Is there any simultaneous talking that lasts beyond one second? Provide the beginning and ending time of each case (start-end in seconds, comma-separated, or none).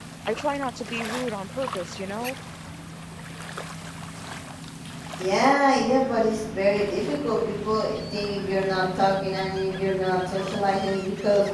none